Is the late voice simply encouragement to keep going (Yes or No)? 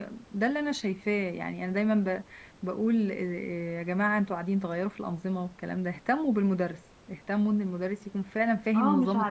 No